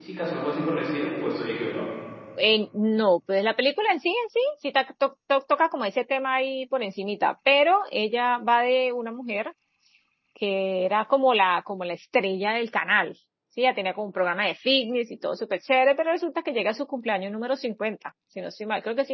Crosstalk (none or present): none